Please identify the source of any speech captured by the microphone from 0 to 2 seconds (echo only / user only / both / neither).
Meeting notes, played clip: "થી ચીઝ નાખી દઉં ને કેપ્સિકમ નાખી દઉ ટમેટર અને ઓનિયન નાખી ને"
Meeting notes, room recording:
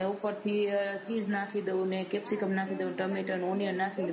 echo only